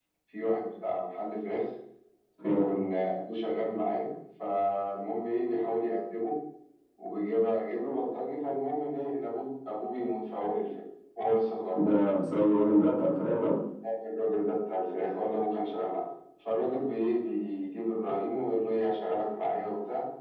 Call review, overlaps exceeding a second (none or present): none